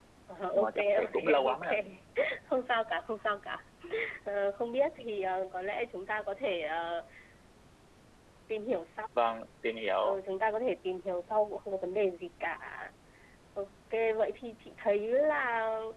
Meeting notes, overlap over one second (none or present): present